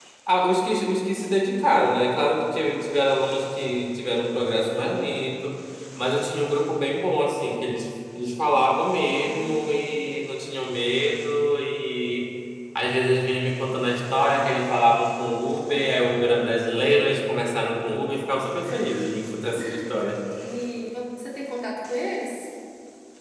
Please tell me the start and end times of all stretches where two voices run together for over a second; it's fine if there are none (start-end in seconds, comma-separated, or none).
none